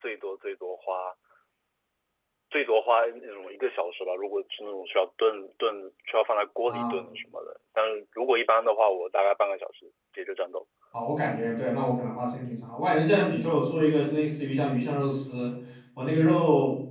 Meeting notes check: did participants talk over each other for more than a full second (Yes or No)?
No